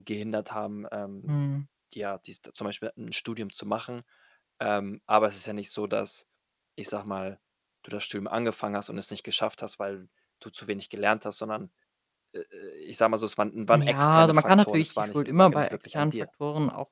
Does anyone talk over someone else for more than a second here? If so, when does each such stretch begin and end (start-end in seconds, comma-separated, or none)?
13.7-16.1